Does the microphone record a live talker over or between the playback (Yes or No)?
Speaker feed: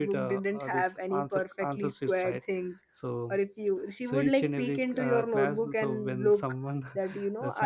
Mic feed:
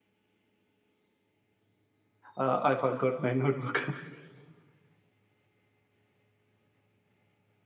Yes